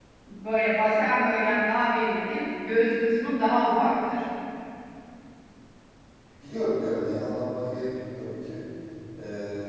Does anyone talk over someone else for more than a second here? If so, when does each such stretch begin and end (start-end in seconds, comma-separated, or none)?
none